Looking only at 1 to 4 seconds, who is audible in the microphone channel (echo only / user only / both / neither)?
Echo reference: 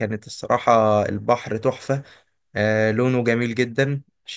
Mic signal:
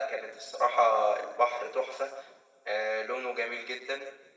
echo only